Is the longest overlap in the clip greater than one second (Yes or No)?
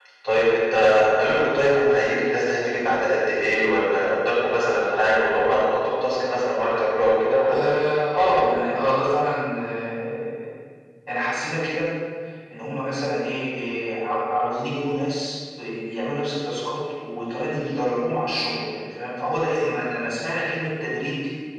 No